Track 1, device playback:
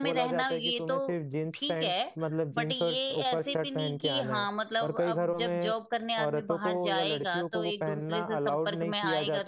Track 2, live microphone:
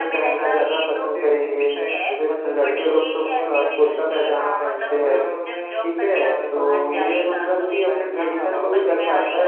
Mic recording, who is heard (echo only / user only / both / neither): both